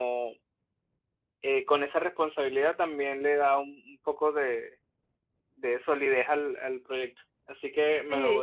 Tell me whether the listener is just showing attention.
No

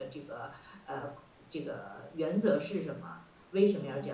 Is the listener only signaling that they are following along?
Yes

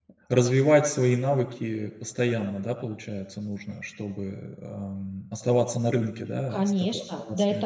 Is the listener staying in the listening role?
No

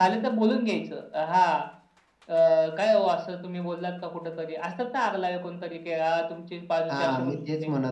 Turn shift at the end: Yes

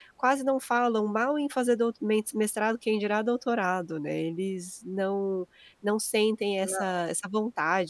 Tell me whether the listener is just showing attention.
Yes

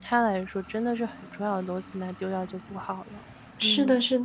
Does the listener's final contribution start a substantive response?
Yes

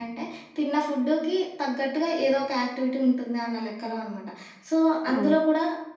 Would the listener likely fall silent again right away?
Yes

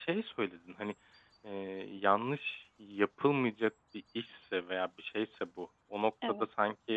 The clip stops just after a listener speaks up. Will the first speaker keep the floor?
Yes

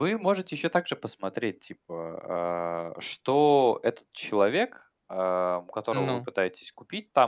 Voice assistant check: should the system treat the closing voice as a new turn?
No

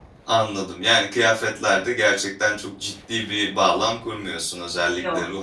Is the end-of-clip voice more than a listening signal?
No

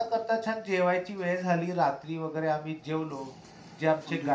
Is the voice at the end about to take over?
No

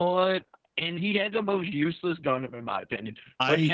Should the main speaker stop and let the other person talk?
No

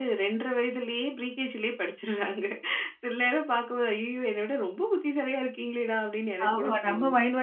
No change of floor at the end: No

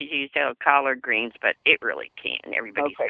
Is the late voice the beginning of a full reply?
Yes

